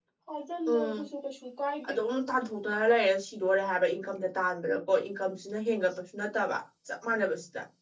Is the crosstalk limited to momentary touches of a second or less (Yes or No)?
Yes